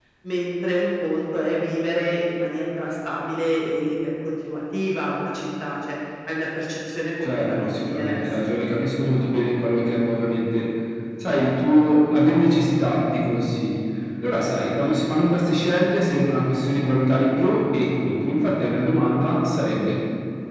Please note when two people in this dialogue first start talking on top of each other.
7.2 s

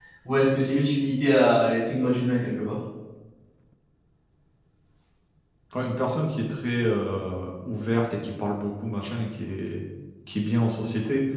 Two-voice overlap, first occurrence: none

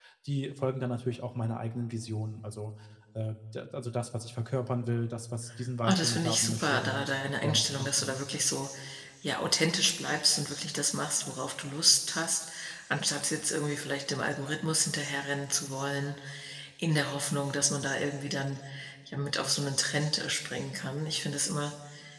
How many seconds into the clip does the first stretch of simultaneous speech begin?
5.8 s

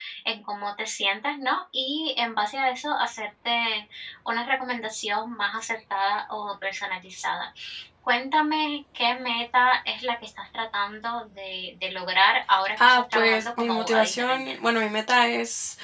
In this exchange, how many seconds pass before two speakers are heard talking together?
12.8 s

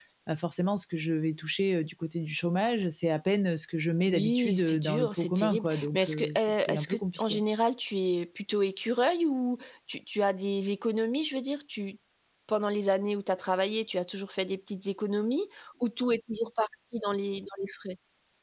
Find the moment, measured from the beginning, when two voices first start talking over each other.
4.1 s

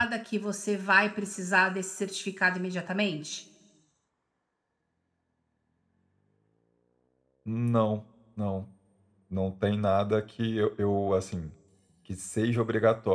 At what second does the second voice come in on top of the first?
none

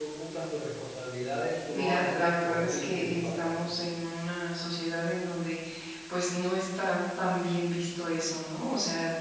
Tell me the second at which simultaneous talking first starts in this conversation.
1.5 s

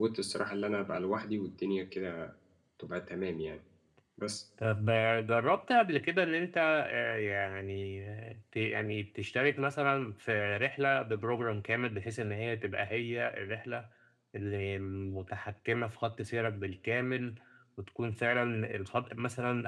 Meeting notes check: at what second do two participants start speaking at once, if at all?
none

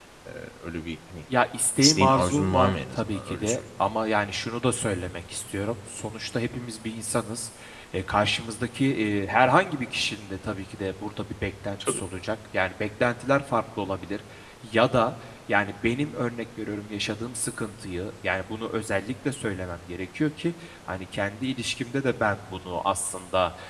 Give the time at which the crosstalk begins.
1.8 s

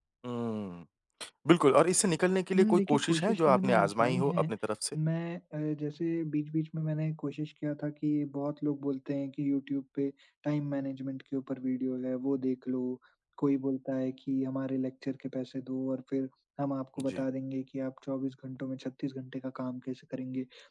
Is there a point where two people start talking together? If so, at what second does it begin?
2.5 s

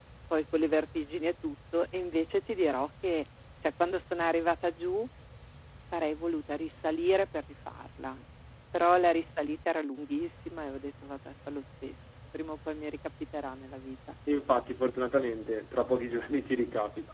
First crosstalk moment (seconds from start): none

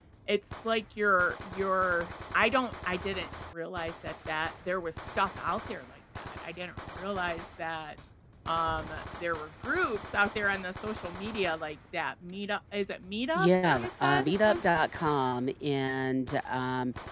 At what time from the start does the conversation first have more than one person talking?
13.3 s

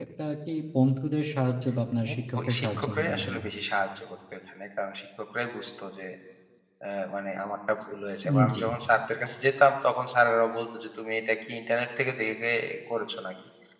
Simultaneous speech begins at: 2.1 s

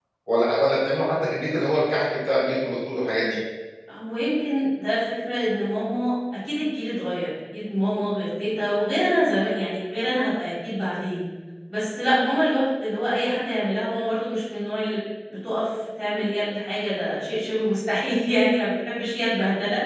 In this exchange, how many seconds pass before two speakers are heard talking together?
none

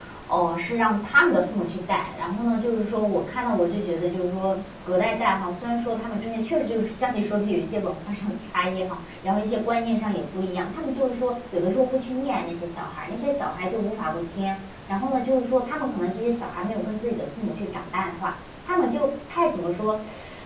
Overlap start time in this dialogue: none

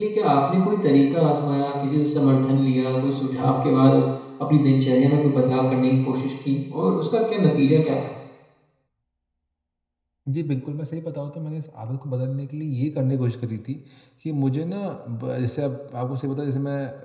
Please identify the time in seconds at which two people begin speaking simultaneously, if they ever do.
none

